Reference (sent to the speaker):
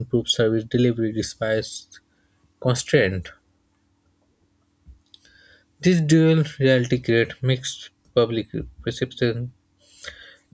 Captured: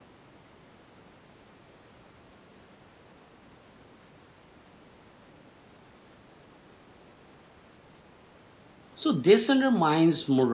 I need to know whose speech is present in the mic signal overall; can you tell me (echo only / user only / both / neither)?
user only